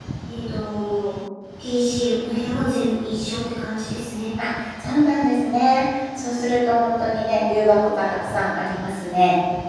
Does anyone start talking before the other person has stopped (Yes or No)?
No